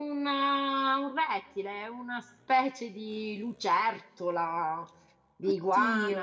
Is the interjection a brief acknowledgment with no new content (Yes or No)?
Yes